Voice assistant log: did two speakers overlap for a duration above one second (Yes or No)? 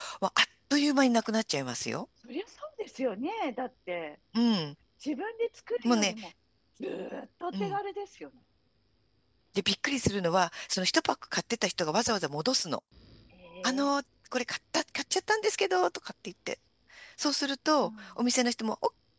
No